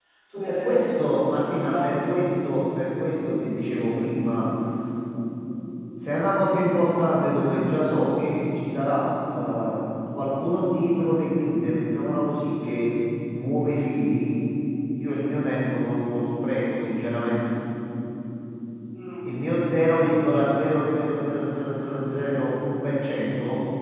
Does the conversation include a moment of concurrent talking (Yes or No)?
Yes